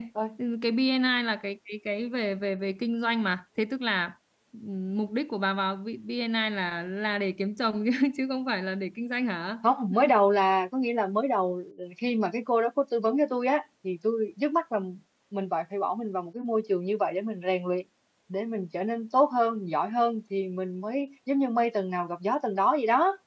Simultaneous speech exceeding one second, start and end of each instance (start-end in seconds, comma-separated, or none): none